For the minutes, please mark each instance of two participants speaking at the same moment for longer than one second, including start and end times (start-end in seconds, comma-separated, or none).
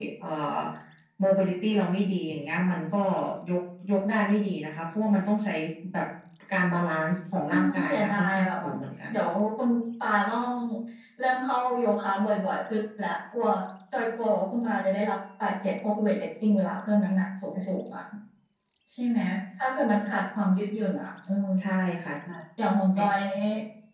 7.5-8.7